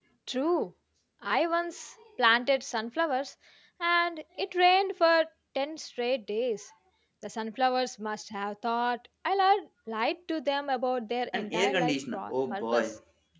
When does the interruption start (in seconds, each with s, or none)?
11.3 s